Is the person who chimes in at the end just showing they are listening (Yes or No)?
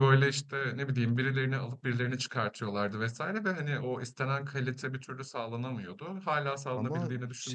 No